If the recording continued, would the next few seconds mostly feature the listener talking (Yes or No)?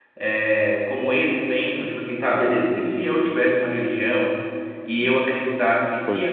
No